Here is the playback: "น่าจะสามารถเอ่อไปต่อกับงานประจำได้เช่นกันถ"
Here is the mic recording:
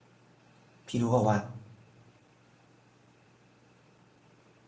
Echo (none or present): none